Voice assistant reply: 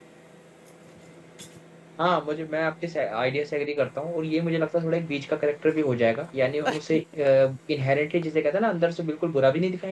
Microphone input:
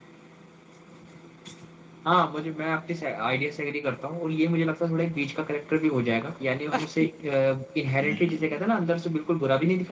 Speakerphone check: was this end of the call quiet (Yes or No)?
No